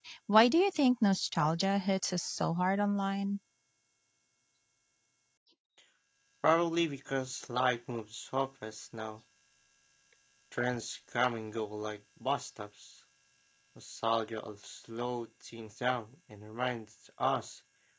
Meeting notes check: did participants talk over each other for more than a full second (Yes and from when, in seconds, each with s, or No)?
No